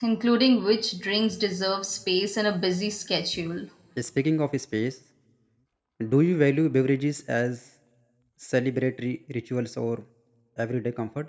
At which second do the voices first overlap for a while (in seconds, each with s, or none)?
none